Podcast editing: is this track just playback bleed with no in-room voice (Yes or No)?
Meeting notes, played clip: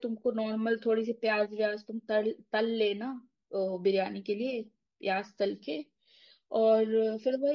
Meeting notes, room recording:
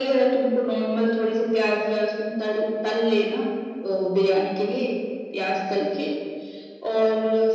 Yes